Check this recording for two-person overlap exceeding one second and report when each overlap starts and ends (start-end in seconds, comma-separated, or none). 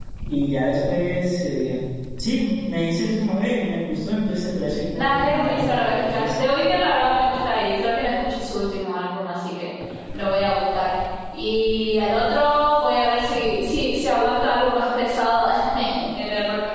4.9-6.5